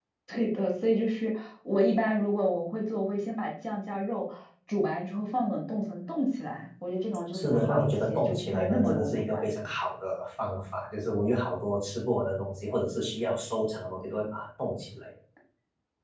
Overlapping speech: Yes, from 7.3 s

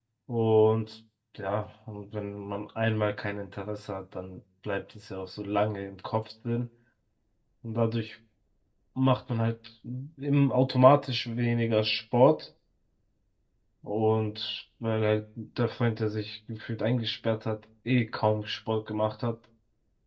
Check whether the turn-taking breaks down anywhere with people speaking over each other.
No

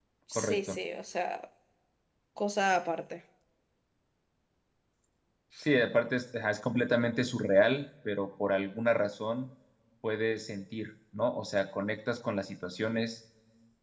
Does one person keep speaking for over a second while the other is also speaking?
No

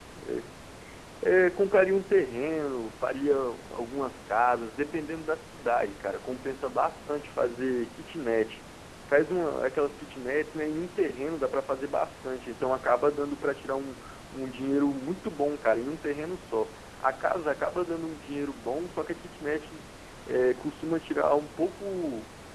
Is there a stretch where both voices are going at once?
No

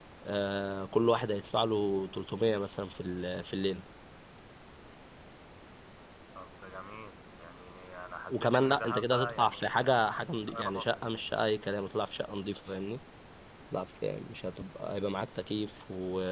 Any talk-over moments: Yes, from 8.3 s

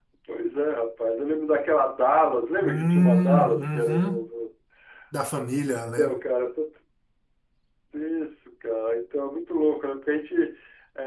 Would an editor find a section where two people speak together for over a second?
Yes, from 2.6 s

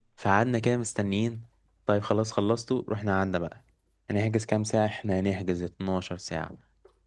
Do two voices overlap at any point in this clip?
No

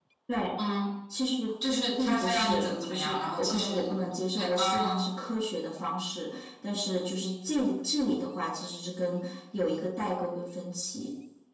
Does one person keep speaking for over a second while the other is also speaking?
Yes, from 2.0 s

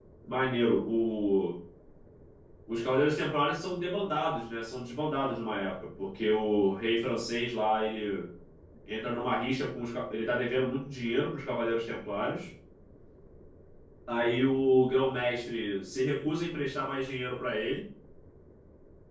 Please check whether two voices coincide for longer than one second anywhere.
No

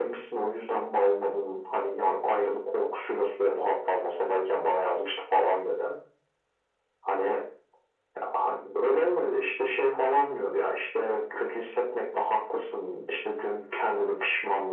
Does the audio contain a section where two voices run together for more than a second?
No

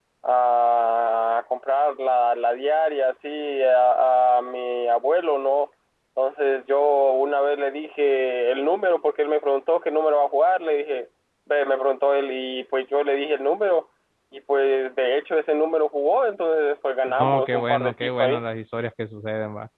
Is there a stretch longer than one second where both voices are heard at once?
Yes, from 17.2 s

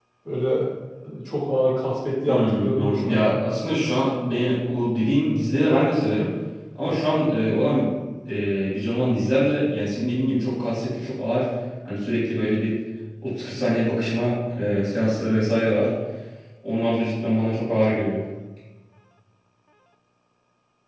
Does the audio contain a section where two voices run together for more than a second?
Yes, from 2.3 s

